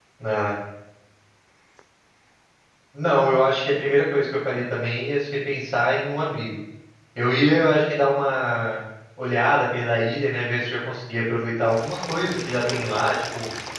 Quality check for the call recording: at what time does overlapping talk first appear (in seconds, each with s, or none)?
none